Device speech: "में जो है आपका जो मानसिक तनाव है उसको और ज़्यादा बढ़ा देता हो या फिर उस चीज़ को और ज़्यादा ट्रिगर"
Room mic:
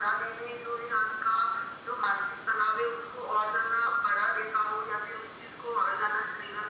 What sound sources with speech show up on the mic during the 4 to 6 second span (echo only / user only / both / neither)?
echo only